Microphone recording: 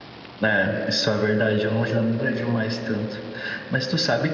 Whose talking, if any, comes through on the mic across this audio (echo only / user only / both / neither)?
user only